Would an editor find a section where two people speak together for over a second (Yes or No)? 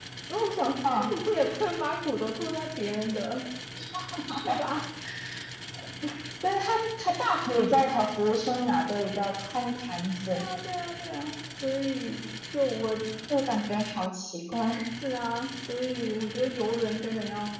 No